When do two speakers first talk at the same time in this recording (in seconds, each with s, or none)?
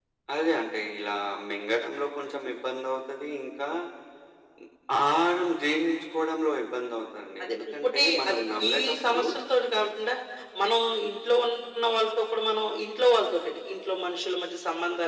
7.4 s